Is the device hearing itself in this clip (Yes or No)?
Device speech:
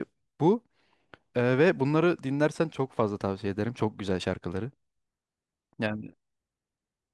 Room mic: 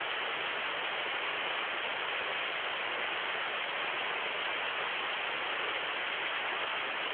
No